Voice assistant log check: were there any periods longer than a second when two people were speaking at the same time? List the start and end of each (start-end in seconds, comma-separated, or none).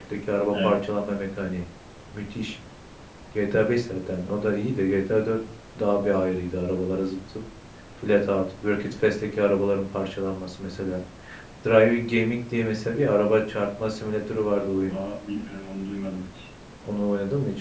none